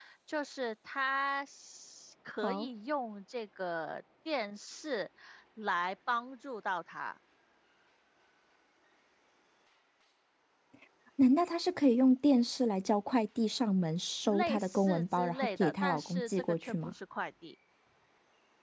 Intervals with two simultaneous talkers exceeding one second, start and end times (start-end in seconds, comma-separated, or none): 14.2-16.9